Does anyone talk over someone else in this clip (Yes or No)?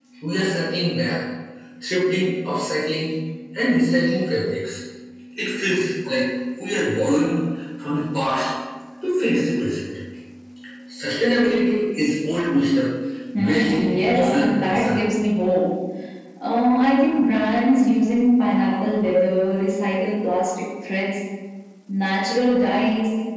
Yes